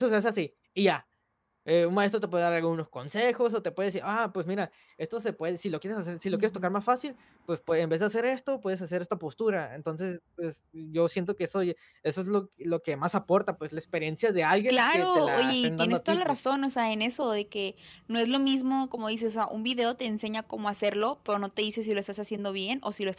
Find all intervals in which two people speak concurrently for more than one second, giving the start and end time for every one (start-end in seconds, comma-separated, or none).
14.7-16.4